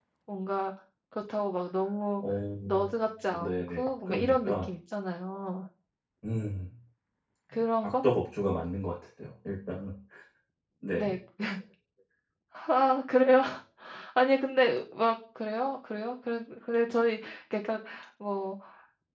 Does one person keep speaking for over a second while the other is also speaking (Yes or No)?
Yes